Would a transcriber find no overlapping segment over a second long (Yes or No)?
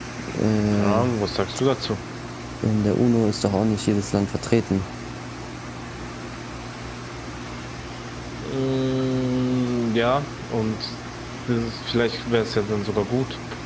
Yes